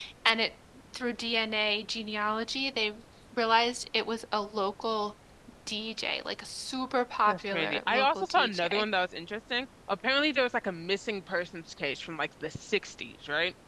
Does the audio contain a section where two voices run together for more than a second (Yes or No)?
Yes